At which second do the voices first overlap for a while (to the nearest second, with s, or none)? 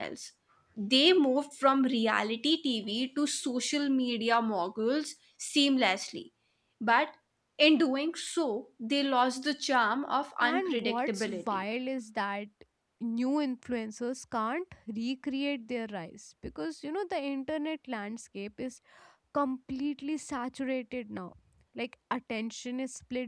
10 s